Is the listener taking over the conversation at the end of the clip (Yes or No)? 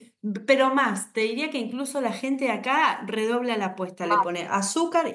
No